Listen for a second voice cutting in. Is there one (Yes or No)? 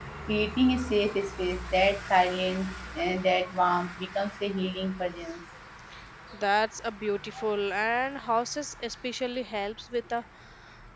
No